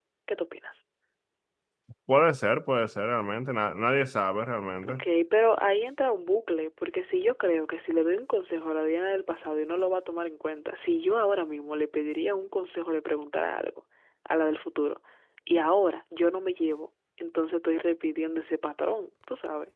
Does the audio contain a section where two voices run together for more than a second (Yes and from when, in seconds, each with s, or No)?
No